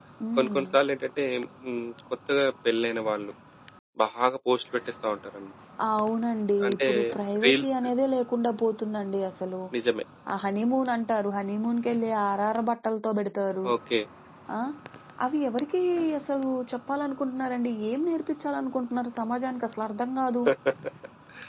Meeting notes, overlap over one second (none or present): none